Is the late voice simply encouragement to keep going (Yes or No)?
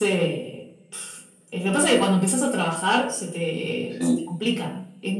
Yes